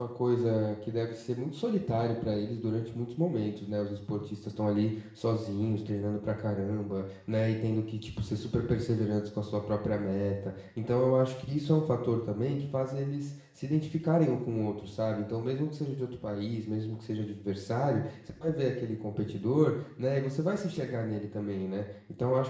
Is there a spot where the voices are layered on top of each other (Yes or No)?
No